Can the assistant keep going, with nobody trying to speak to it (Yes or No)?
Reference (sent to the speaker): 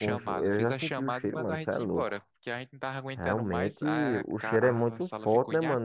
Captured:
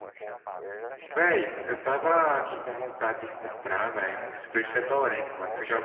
No